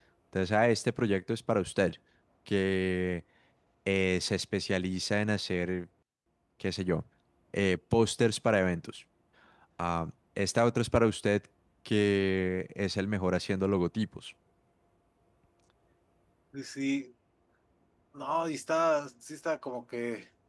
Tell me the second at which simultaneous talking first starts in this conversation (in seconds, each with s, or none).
none